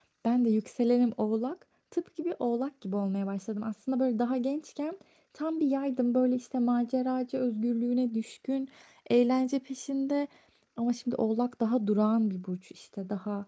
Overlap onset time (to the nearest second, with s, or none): none